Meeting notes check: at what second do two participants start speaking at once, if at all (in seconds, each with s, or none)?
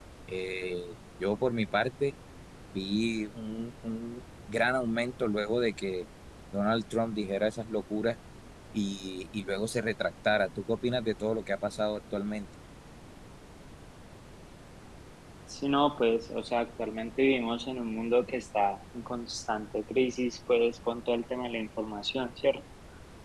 none